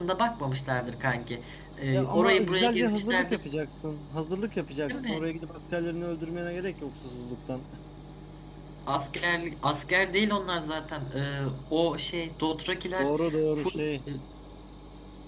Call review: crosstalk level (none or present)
present